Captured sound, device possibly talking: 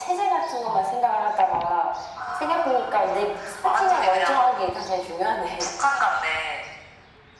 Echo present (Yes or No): Yes